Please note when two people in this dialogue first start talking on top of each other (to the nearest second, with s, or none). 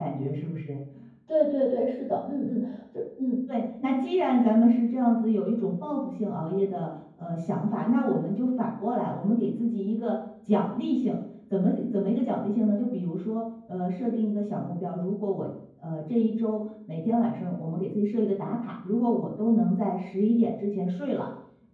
none